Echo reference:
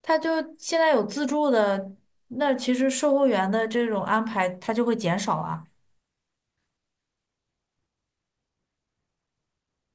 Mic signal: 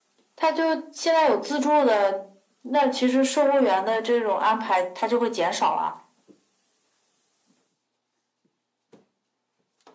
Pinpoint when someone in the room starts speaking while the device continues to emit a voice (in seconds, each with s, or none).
none